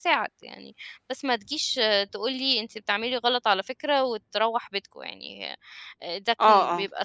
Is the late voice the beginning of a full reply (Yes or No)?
Yes